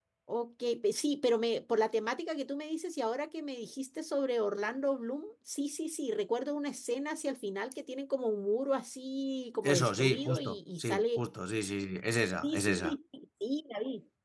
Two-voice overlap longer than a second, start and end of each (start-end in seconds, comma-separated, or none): 9.6-11.2